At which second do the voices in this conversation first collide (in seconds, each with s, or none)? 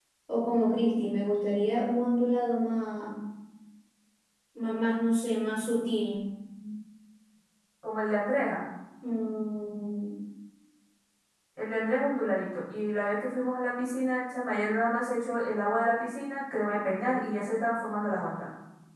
none